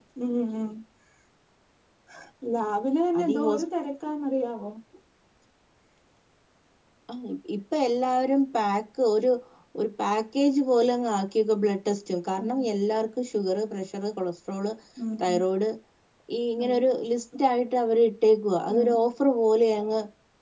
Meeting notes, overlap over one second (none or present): none